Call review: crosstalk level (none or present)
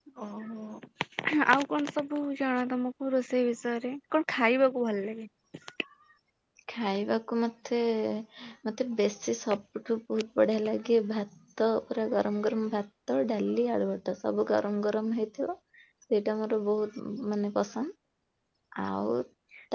none